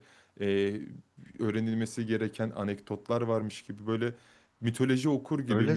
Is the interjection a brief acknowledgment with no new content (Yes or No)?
No